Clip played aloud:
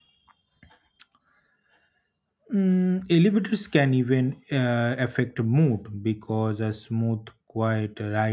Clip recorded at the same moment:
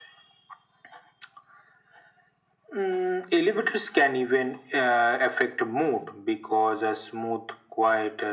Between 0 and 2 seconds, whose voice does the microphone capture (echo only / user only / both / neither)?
neither